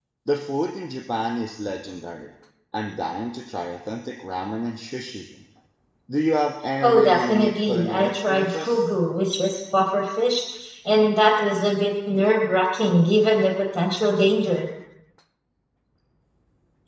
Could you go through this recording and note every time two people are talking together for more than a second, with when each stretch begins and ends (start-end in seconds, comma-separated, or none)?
6.8-8.8